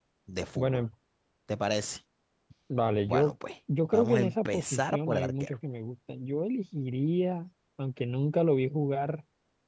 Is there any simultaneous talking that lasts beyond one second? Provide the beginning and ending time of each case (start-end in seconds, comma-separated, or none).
3.9-5.5